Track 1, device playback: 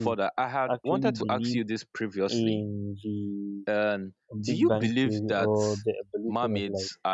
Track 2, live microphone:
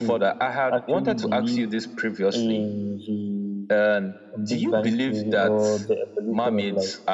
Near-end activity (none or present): none